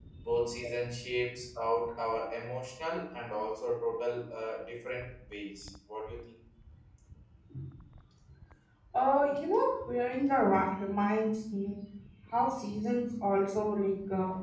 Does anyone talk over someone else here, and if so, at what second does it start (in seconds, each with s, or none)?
none